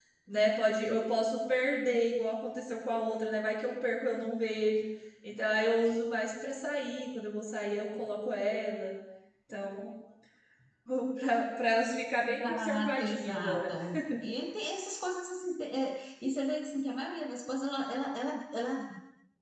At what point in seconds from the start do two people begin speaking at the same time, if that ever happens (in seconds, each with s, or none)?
12.2 s